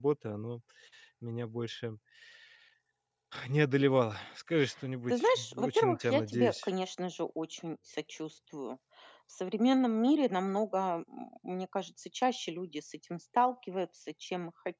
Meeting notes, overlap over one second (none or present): present